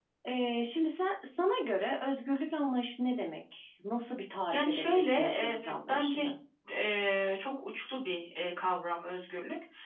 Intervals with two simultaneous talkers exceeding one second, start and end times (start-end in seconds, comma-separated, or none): 4.5-6.2